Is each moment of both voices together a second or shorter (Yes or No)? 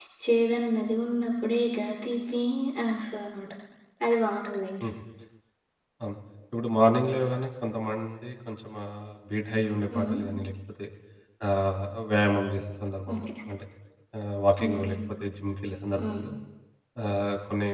Yes